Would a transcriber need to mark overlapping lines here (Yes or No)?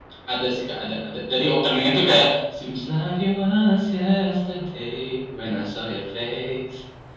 No